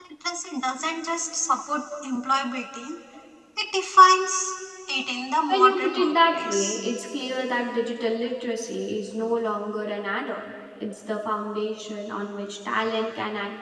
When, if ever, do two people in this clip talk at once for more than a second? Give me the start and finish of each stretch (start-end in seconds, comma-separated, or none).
5.5-6.8